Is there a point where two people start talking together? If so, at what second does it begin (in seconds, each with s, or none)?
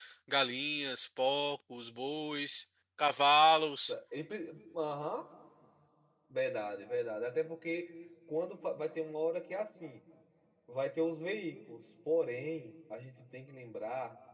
none